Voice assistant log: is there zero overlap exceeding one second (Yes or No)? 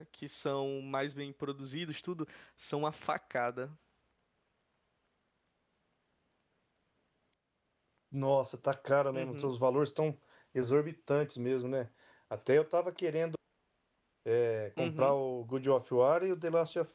Yes